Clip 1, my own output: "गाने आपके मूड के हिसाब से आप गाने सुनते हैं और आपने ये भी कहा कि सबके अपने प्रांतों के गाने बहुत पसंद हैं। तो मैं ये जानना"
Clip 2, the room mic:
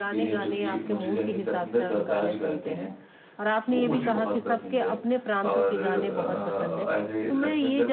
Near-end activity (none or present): present